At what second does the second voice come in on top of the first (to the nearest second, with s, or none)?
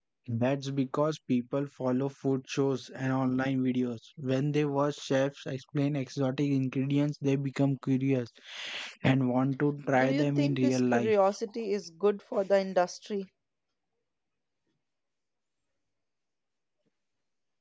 10 s